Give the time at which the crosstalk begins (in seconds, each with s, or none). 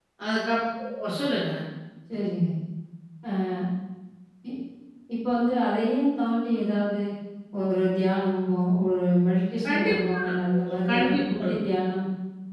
9.6 s